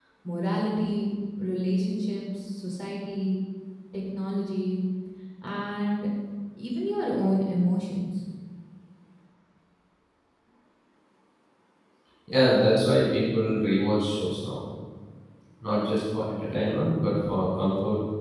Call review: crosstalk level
none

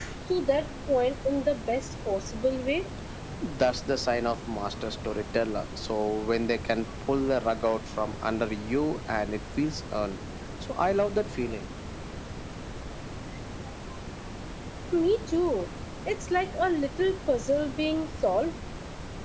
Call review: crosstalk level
none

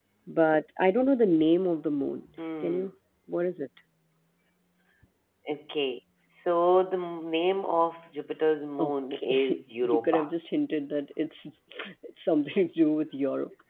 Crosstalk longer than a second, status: present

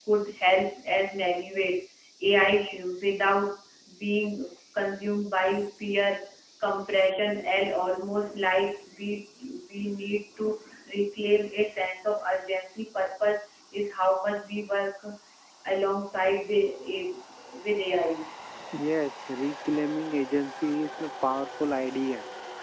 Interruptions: none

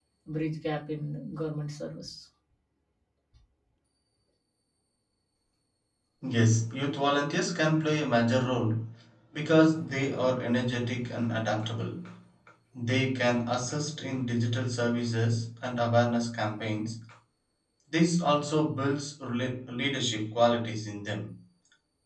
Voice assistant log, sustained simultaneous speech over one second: none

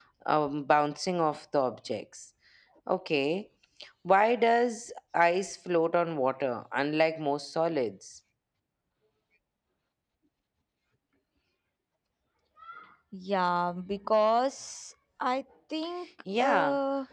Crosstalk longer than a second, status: none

